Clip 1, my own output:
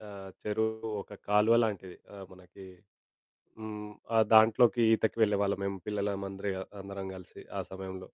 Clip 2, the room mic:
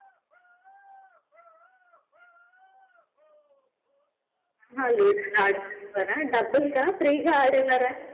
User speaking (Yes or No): Yes